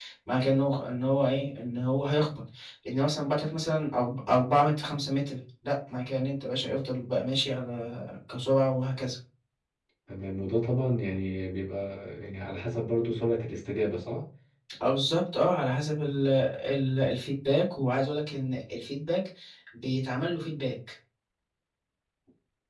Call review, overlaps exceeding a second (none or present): none